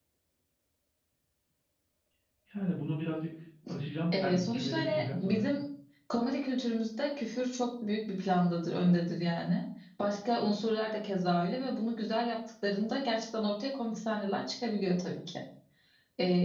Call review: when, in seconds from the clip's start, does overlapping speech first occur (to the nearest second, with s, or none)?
4 s